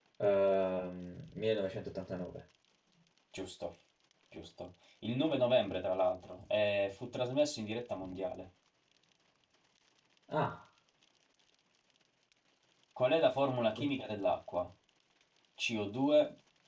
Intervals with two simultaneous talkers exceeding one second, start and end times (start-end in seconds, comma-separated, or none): none